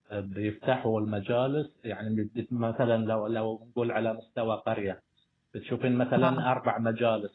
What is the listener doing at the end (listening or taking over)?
listening